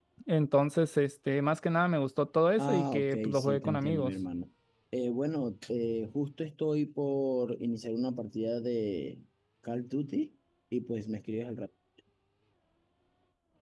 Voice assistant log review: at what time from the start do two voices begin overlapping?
2.6 s

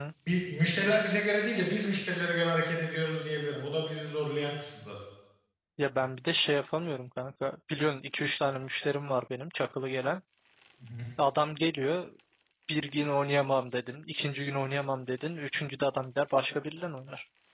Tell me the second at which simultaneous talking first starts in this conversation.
none

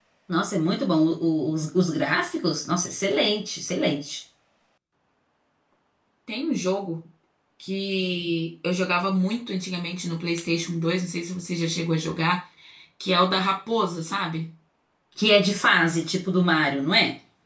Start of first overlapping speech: none

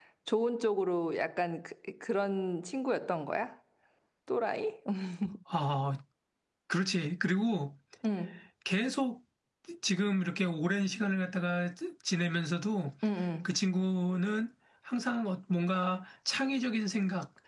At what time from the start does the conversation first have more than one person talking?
none

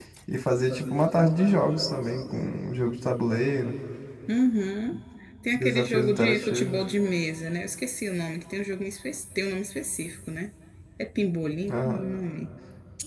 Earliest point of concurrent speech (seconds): 5.5 s

